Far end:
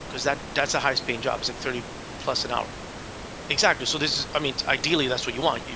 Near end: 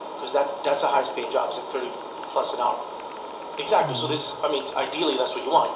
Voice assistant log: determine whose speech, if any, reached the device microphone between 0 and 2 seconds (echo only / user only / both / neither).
echo only